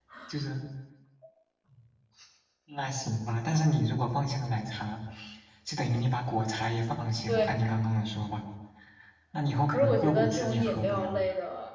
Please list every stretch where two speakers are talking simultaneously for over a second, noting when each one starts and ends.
9.7-11.2

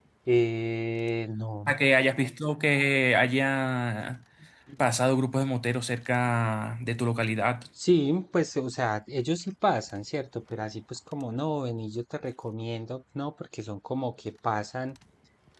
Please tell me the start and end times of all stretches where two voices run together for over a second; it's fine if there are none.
none

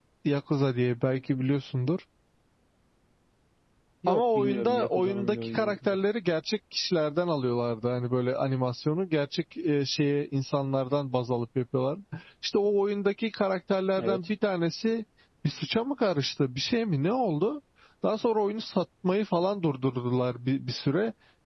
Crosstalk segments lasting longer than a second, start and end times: 4.1-6.0

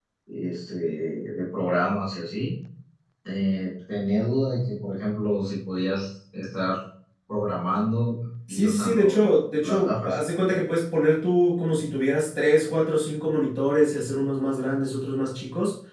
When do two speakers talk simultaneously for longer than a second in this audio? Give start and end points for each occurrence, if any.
8.5-10.2

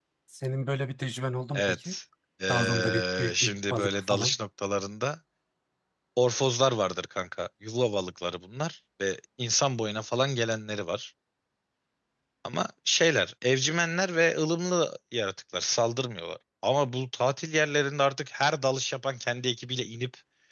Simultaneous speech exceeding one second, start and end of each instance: 2.5-4.4

